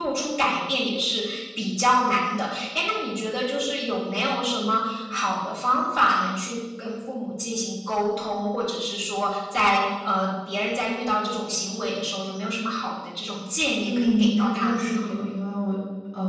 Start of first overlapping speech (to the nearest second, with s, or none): 14 s